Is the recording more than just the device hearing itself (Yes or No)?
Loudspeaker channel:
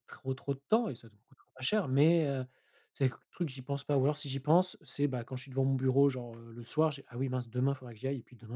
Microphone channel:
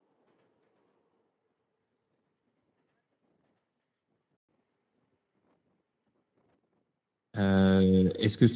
Yes